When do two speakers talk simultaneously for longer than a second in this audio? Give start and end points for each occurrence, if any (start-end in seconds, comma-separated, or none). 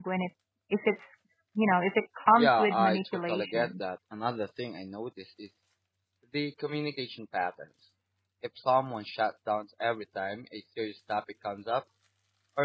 2.4-3.7